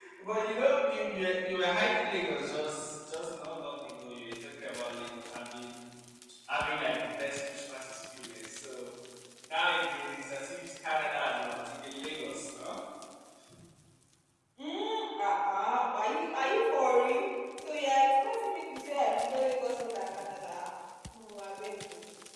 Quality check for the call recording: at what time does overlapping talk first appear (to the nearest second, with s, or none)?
none